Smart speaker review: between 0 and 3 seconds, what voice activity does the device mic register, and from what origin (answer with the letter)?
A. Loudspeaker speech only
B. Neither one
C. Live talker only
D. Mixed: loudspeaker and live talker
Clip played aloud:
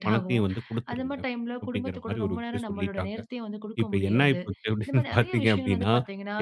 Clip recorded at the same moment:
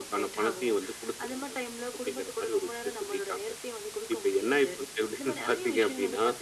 A